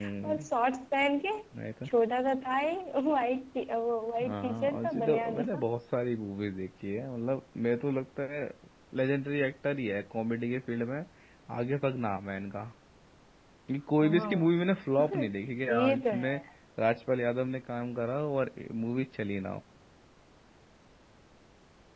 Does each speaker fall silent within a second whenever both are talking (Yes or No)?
No